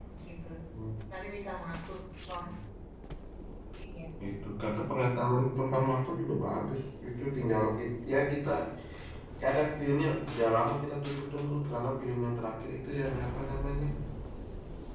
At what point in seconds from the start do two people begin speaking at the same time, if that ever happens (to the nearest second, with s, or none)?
none